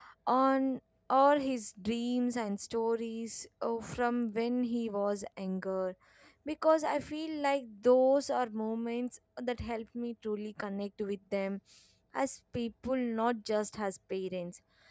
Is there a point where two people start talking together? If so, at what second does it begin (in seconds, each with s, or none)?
none